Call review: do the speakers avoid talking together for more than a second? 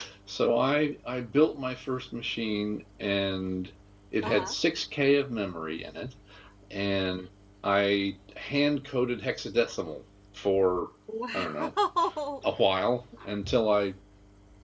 Yes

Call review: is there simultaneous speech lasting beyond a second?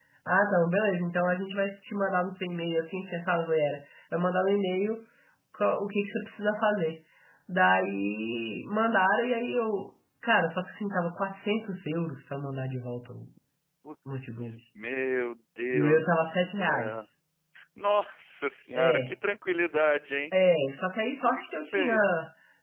Yes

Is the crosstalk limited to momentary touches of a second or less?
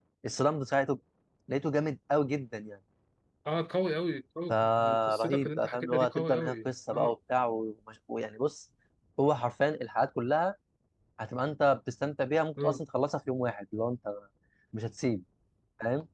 No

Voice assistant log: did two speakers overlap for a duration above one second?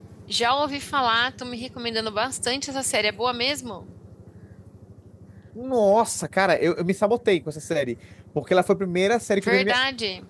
No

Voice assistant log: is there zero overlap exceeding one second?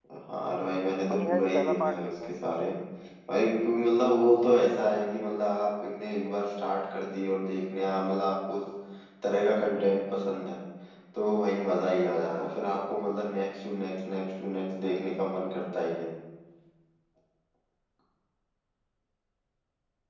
No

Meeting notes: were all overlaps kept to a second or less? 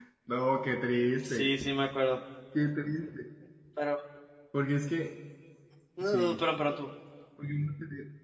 Yes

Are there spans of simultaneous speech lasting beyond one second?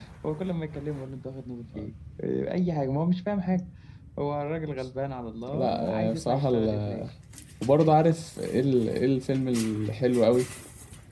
Yes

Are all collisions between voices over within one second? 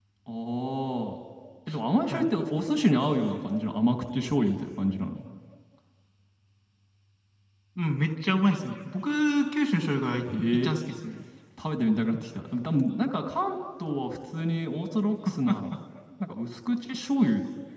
Yes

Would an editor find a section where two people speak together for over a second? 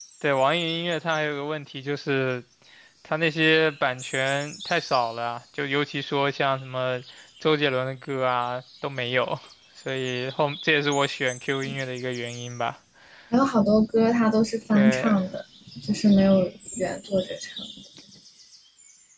No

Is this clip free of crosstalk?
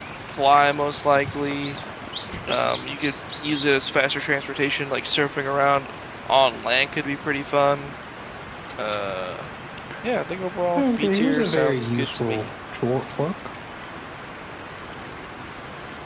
No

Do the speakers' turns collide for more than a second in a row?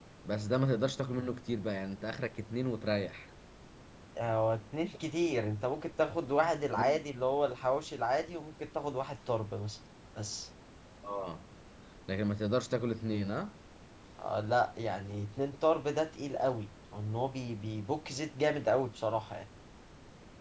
No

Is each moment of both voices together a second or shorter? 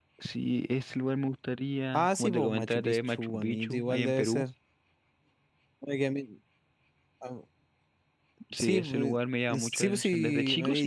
No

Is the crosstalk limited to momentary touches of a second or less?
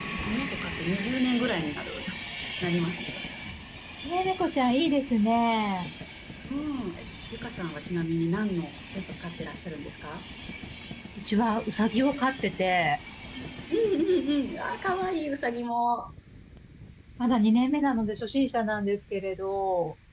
Yes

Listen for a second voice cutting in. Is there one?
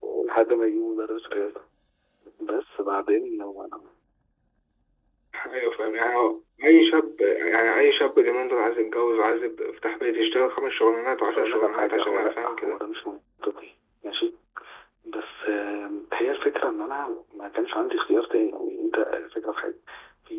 Yes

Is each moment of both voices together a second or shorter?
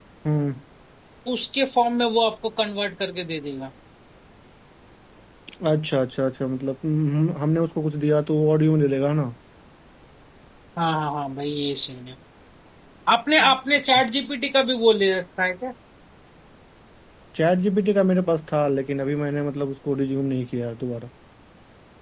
Yes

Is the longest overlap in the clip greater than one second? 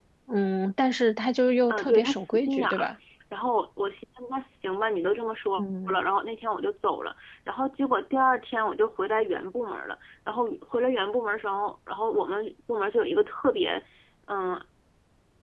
Yes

